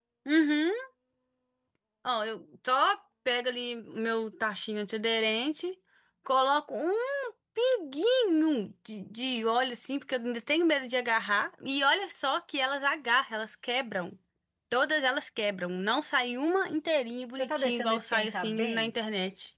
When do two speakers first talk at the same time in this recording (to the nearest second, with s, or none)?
17 s